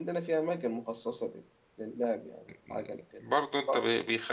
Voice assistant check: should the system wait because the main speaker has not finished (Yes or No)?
No